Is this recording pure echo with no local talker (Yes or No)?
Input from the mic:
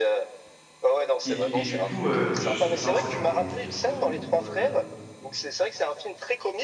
No